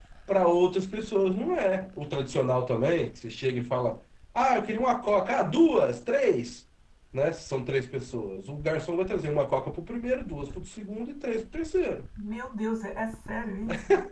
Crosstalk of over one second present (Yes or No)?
No